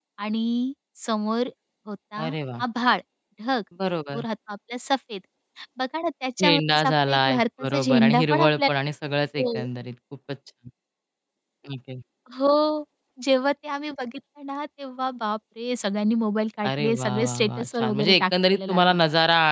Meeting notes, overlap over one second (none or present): present